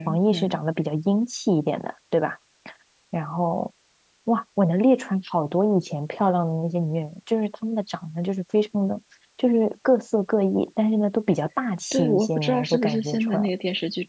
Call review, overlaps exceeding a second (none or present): present